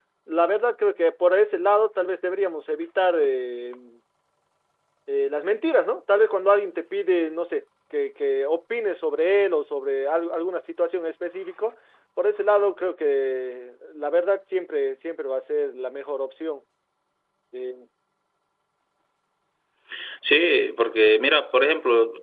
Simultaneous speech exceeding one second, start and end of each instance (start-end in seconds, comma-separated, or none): none